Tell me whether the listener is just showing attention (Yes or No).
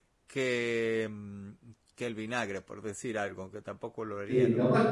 No